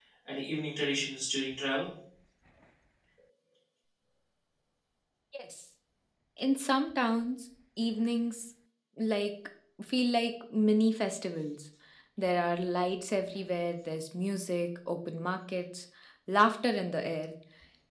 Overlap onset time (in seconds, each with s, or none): none